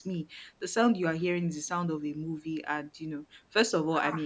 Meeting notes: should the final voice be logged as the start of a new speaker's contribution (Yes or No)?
No